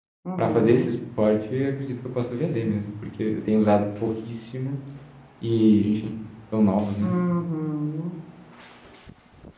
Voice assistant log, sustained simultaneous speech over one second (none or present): none